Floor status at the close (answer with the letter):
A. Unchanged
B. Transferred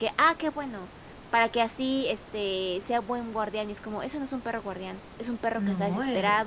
A